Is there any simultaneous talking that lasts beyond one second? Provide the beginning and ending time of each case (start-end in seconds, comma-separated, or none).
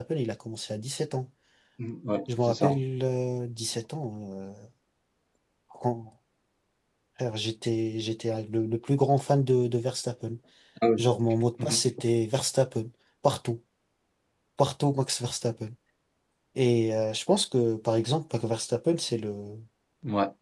none